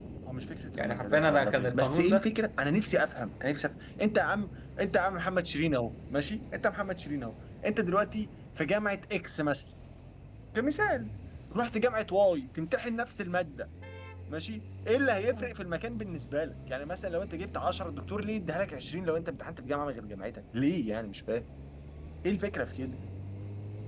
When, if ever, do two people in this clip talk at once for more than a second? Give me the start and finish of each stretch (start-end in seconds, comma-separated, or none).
0.8-2.2